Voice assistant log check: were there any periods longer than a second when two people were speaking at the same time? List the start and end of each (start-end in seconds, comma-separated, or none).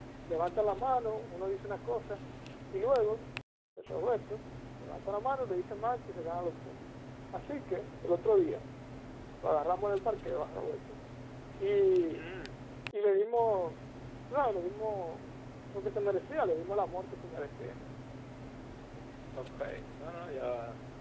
none